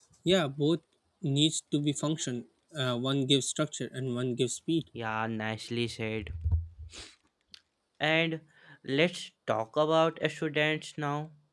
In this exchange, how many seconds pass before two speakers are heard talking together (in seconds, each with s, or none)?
none